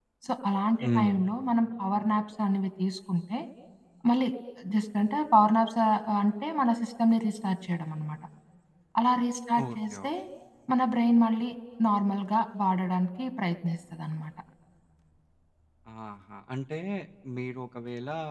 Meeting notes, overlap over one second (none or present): none